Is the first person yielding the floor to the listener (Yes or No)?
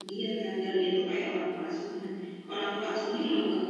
No